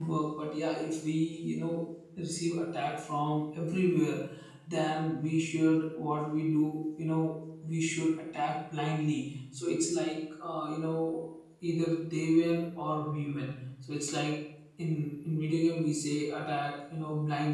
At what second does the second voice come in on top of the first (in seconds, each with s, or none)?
none